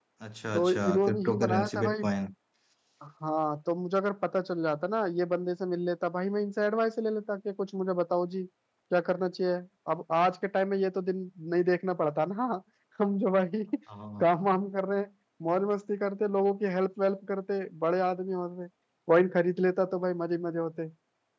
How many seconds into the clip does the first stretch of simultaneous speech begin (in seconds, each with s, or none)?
0.5 s